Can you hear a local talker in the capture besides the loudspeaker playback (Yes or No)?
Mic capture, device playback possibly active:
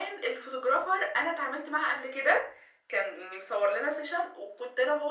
No